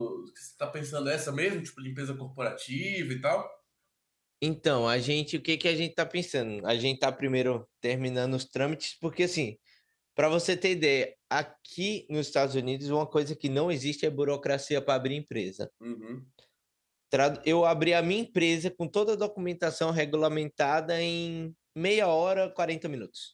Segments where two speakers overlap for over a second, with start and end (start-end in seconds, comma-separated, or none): none